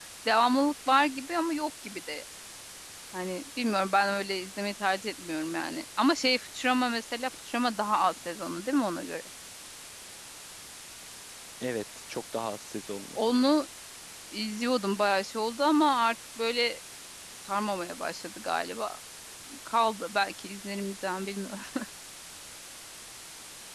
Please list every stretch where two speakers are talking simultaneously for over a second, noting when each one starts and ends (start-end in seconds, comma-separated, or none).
none